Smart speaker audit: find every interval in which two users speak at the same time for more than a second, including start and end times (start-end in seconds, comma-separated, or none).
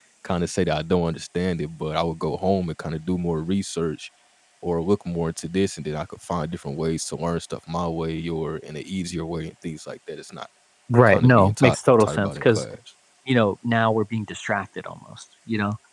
11.1-12.6